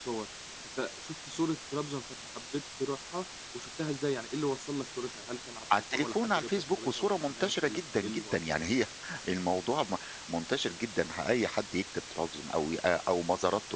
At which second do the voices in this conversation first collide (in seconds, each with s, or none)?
5.7 s